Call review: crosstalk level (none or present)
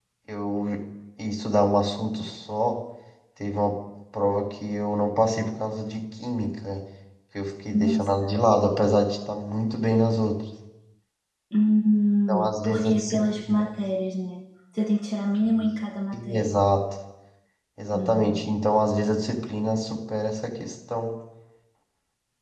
present